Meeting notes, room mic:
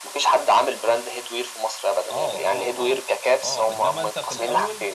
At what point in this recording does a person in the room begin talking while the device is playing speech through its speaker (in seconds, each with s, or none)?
2.1 s